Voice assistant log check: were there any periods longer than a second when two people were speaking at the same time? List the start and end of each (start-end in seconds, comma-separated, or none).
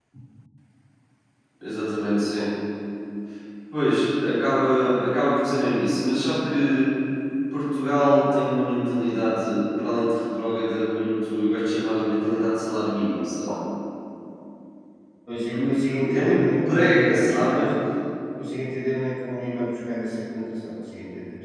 15.6-17.6